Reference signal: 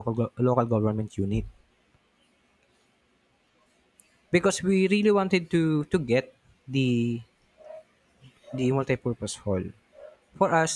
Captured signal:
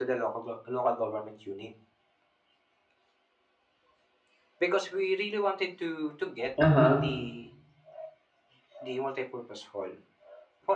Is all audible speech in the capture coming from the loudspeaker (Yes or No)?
No